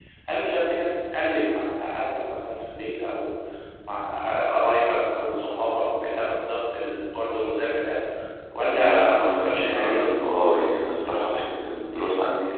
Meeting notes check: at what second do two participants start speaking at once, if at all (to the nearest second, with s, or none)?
9 s